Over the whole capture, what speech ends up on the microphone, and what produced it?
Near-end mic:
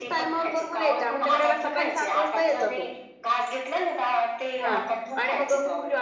both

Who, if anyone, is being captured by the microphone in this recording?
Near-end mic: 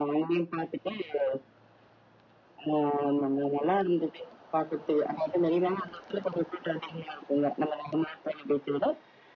echo only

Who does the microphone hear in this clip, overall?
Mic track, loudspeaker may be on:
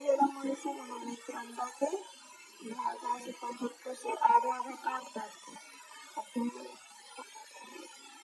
echo only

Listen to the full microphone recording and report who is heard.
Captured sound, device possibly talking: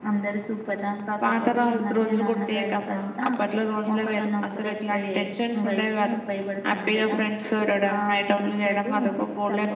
echo only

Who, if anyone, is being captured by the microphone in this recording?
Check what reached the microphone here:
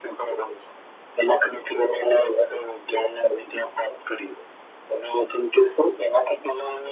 echo only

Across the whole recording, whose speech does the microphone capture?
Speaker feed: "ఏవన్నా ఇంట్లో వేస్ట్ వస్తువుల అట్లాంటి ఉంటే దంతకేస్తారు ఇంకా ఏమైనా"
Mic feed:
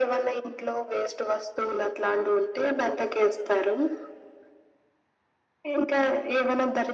echo only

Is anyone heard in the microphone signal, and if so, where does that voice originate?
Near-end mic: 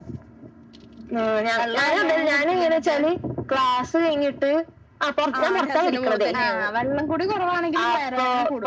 both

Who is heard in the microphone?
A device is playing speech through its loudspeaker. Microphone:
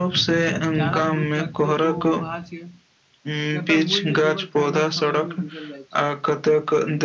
both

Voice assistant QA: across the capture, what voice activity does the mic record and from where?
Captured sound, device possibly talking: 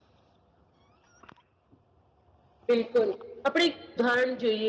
user only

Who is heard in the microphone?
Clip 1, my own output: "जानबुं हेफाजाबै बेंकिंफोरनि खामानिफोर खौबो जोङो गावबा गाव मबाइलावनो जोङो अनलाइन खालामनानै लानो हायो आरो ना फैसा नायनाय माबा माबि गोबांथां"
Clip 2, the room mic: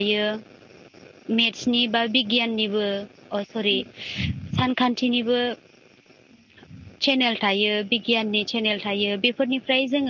user only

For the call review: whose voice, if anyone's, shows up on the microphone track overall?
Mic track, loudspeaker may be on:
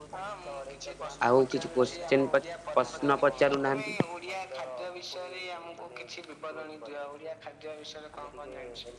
both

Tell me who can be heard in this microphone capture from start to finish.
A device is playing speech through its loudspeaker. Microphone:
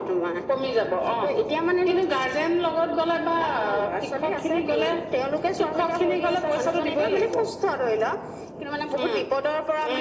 echo only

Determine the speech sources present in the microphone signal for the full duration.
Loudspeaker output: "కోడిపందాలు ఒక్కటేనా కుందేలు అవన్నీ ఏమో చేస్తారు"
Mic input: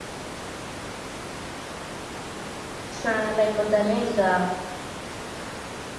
user only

